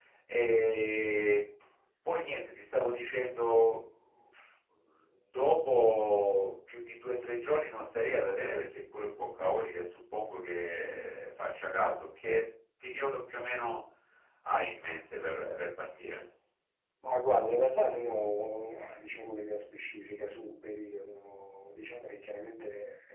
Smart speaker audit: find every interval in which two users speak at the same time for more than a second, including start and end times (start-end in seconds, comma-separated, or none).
none